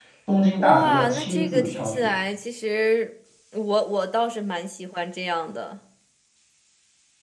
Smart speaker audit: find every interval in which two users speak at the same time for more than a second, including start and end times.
0.6-2.1

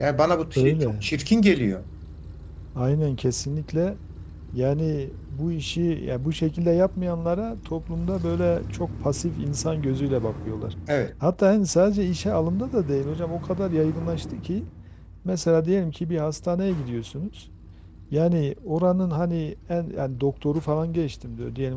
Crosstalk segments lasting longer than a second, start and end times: none

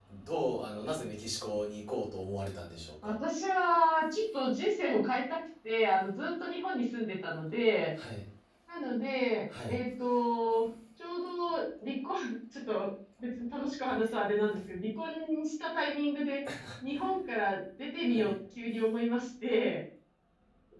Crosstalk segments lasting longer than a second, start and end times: none

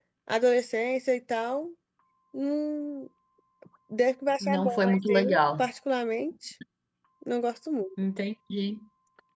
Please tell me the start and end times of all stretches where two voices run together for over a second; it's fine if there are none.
4.4-5.6

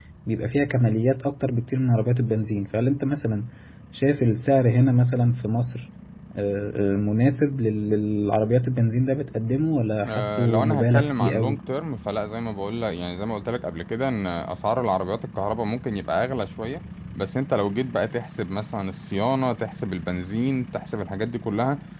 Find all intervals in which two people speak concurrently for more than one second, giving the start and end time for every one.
10.0-11.6

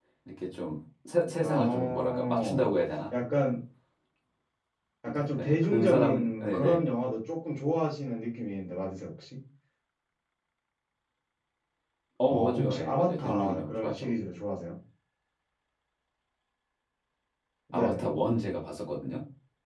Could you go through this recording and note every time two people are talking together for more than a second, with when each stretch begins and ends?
1.4-2.6, 5.0-6.8, 12.2-14.1

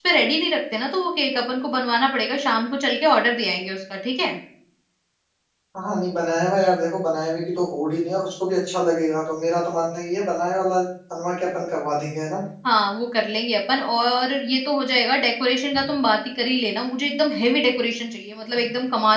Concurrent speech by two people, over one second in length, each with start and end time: none

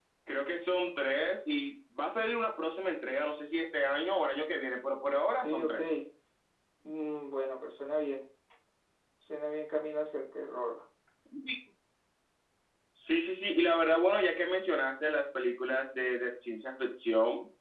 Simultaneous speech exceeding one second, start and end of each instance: none

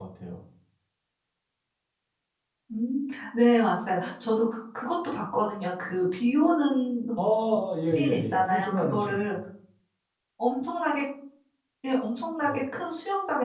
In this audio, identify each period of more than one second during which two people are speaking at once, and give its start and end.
7.8-9.3

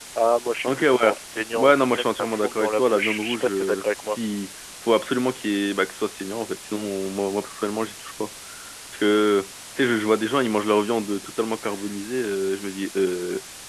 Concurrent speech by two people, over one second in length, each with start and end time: 1.5-4.2

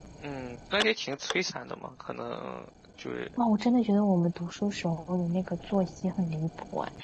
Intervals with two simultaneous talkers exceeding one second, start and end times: none

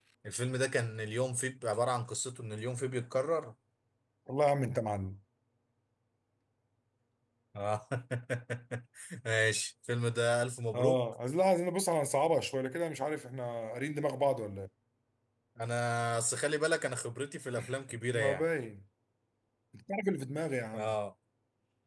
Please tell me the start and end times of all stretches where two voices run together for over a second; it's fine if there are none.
none

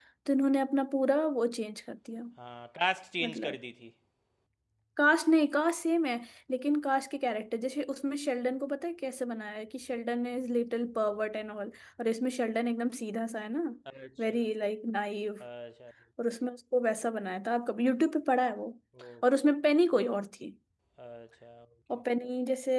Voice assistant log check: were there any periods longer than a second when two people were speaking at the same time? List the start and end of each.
none

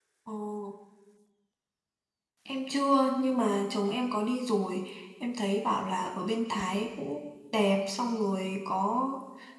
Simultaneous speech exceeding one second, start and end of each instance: none

